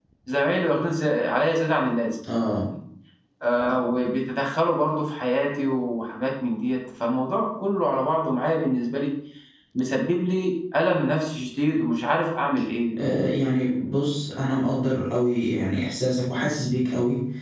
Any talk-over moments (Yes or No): No